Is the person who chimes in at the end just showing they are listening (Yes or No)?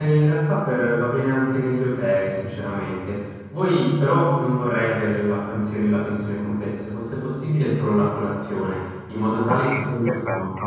No